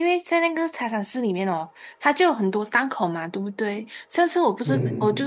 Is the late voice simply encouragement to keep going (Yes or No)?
Yes